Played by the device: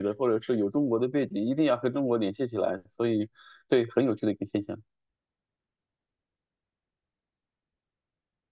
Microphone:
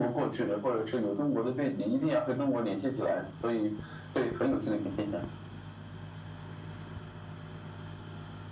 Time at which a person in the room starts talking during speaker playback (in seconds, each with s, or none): none